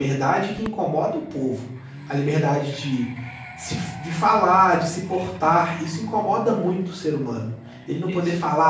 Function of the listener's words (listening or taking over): listening